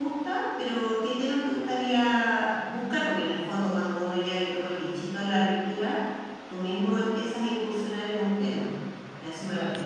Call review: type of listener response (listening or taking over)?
taking over